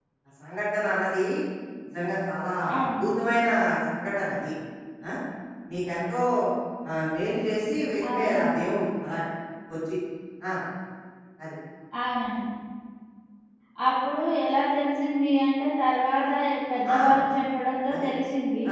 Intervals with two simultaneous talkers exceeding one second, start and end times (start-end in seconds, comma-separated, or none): none